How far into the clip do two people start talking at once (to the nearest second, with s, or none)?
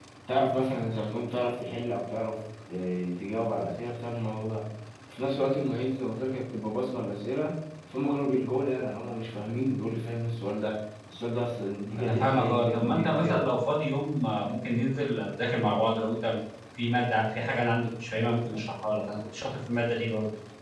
12 s